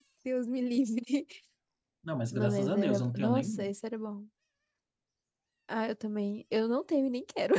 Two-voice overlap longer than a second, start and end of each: 2.3-3.7

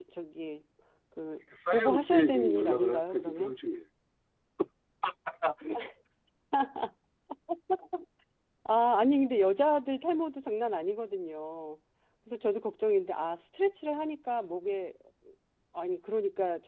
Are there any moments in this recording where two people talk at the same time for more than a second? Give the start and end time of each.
1.7-3.5

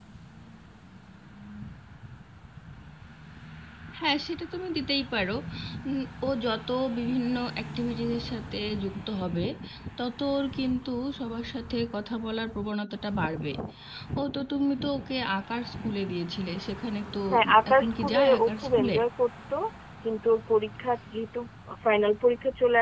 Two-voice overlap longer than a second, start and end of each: 17.3-18.9

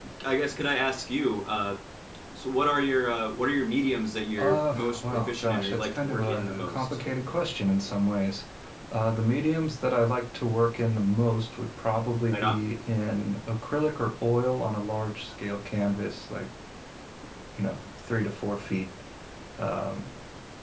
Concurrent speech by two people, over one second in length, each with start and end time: 4.4-7.0

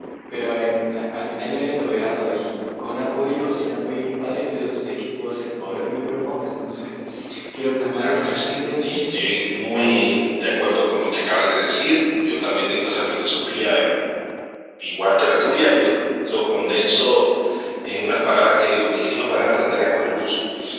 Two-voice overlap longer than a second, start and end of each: 7.9-9.3

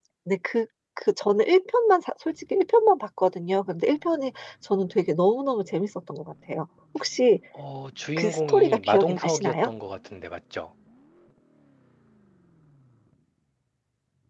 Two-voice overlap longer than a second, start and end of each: 8.2-9.7

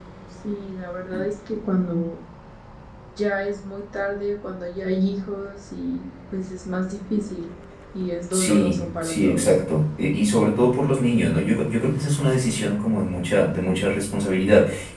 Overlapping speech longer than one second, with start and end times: 8.3-9.5

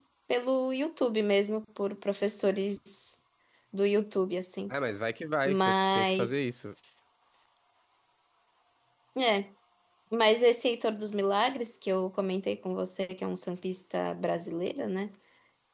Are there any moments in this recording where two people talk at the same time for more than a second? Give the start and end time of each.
5.5-6.7

